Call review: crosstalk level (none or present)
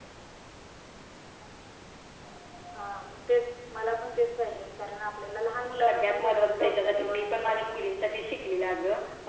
present